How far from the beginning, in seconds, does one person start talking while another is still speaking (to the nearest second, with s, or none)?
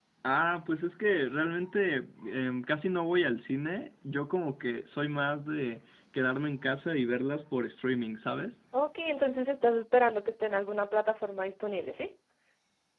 none